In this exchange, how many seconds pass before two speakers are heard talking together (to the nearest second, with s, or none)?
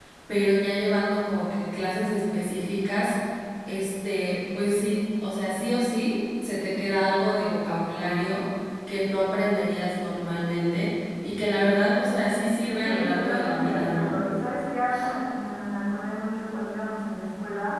13 s